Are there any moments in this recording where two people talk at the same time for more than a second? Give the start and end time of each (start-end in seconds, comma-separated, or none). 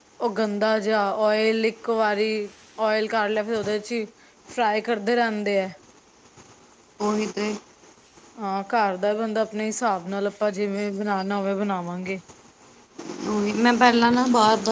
none